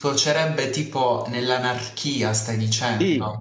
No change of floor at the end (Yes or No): No